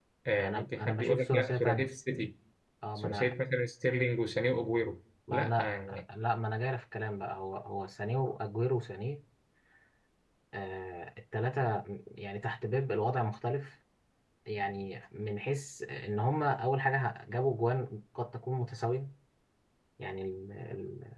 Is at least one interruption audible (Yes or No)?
Yes